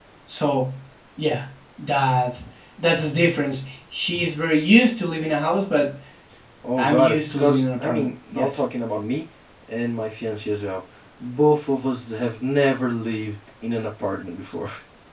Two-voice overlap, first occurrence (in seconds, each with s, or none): 6.8 s